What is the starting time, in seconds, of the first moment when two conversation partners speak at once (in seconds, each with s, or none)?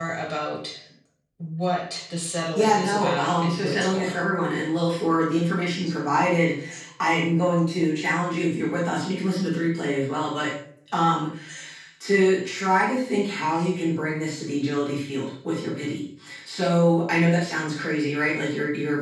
2.6 s